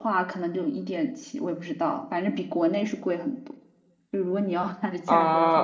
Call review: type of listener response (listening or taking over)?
taking over